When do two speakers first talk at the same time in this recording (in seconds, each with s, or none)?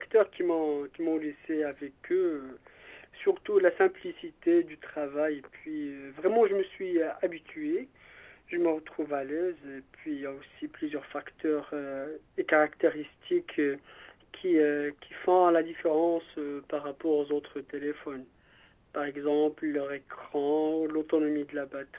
none